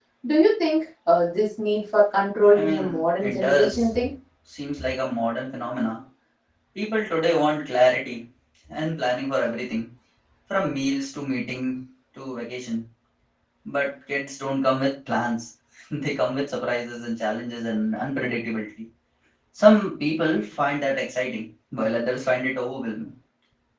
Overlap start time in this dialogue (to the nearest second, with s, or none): 3 s